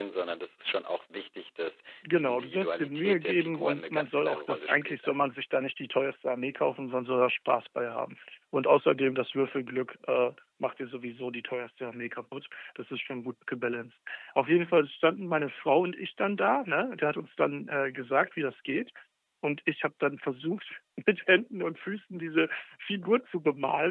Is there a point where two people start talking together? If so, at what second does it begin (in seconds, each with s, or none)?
2.0 s